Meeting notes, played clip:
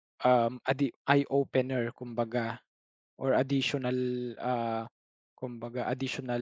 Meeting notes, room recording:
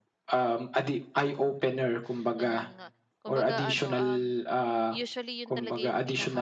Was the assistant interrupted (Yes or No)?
Yes